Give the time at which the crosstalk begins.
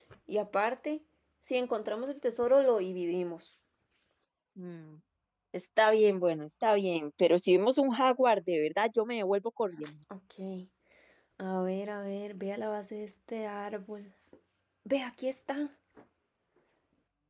none

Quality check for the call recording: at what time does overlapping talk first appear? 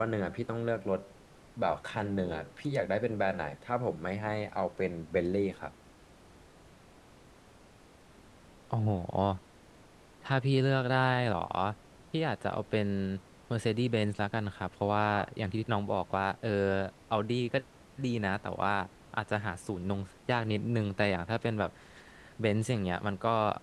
none

